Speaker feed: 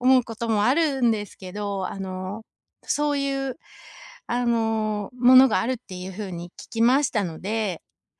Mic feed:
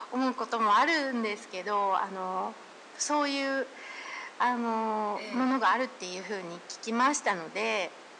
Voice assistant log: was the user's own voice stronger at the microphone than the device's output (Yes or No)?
No